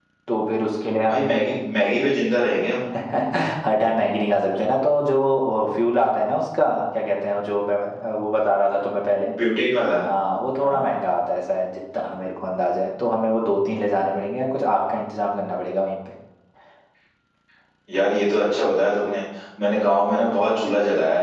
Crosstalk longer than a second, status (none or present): none